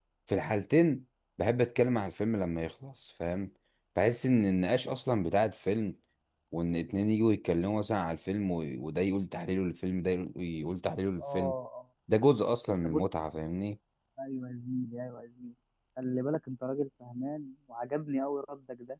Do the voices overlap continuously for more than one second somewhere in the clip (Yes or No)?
No